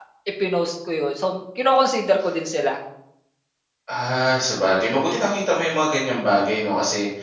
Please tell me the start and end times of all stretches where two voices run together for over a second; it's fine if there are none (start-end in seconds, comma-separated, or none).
none